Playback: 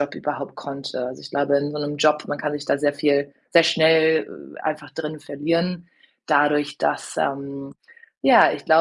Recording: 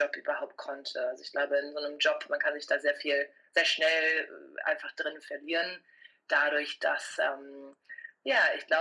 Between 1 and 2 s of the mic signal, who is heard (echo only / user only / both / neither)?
echo only